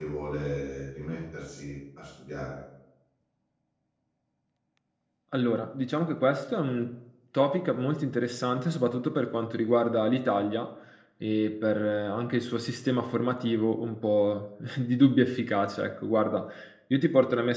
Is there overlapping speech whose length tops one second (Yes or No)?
No